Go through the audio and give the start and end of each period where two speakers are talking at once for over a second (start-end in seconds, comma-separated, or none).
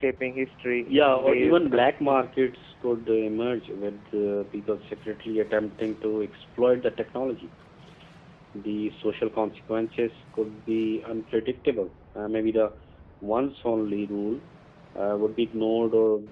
0.9-2.2